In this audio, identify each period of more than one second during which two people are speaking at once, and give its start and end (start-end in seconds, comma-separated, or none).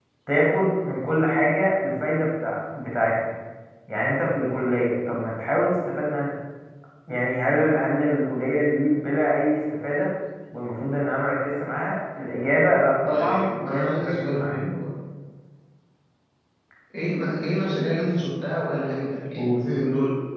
13.1-14.6